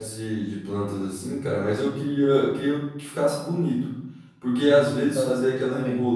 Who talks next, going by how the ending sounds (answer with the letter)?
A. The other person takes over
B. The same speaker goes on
B